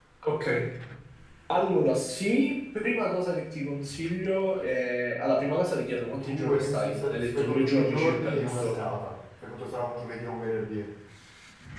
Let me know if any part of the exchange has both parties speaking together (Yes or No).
Yes